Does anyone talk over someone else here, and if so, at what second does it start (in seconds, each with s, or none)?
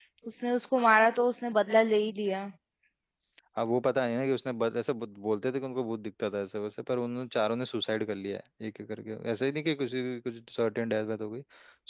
none